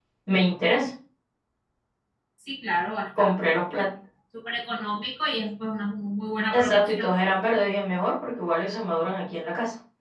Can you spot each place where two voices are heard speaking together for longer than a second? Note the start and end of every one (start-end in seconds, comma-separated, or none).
none